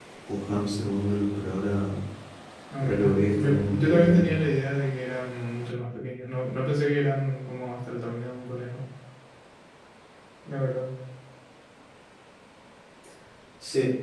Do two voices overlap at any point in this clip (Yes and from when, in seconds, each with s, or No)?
Yes, from 2.8 s